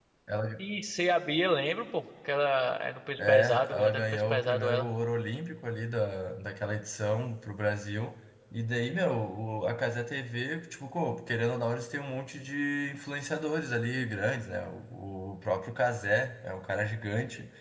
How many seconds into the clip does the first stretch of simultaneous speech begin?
3.2 s

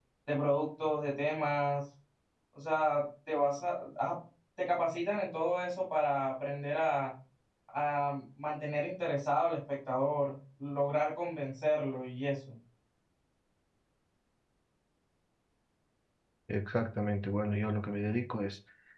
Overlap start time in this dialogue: none

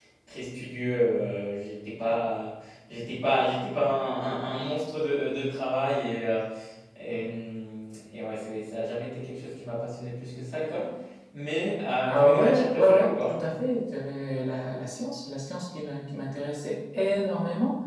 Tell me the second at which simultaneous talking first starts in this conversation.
12.1 s

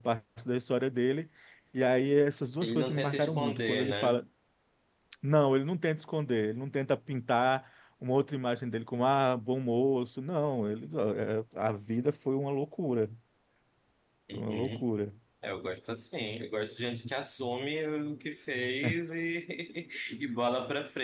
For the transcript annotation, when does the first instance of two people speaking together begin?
2.6 s

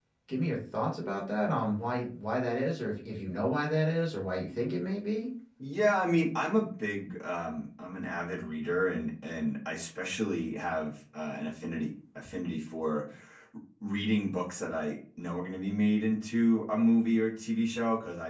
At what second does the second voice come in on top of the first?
none

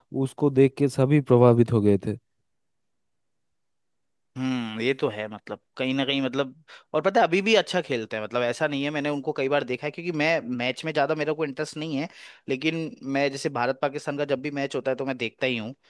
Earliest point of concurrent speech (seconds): none

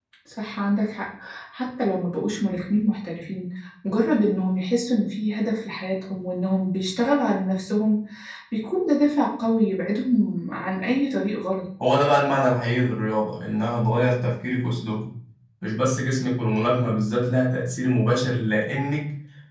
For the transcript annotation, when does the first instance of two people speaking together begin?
none

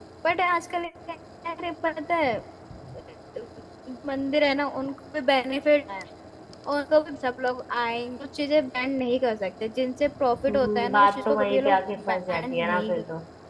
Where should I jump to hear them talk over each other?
10.5 s

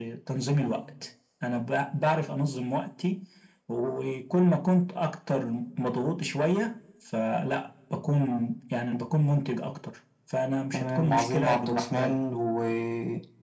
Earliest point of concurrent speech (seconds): 10.7 s

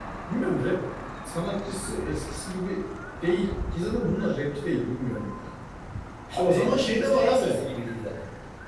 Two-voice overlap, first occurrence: 6.3 s

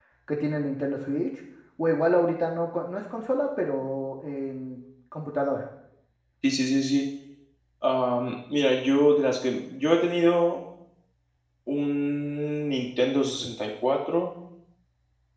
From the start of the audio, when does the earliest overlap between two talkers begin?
none

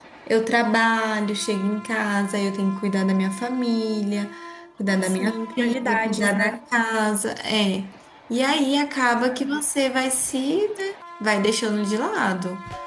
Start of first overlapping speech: 5.0 s

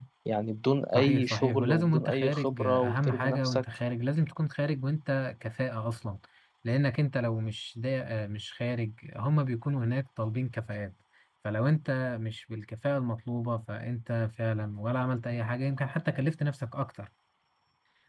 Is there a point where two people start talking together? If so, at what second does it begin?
0.9 s

